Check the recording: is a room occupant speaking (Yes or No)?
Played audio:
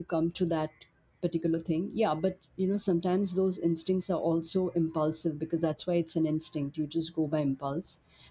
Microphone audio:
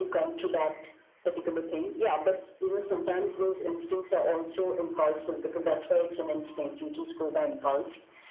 No